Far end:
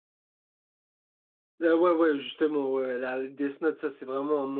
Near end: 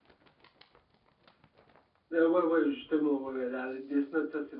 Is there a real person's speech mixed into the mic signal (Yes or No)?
No